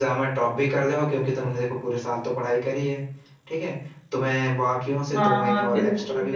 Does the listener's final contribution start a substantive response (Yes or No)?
Yes